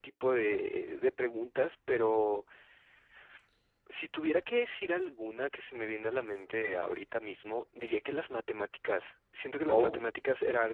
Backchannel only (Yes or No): Yes